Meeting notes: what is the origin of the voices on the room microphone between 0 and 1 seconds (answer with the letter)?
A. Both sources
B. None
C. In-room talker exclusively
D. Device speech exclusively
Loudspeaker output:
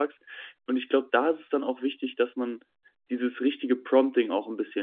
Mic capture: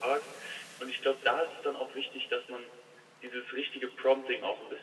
D